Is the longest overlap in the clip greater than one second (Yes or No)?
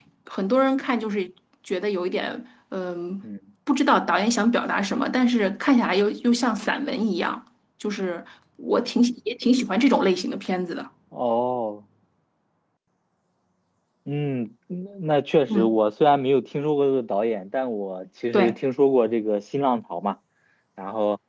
No